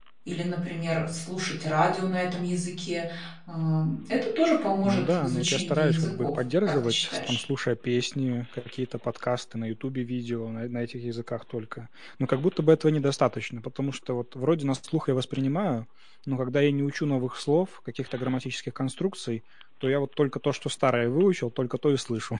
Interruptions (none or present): present